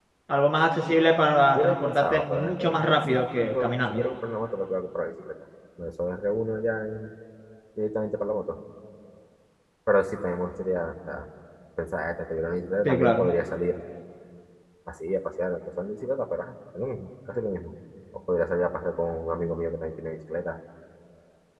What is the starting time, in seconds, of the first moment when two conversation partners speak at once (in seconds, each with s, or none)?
1.5 s